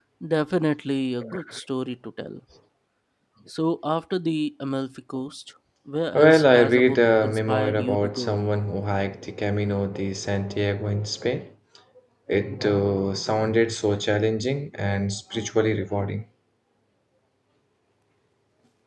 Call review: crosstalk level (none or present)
present